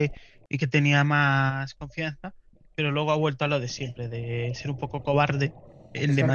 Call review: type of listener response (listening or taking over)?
taking over